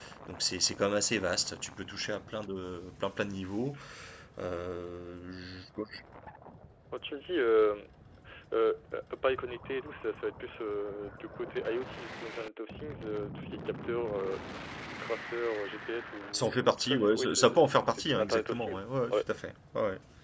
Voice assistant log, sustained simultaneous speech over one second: present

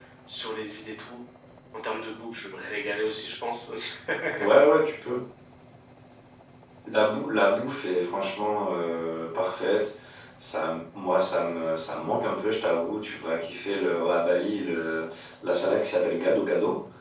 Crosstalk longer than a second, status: none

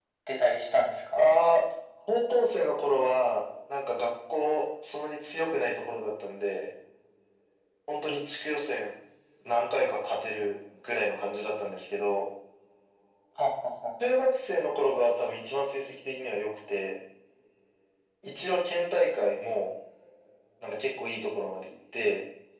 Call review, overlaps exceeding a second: none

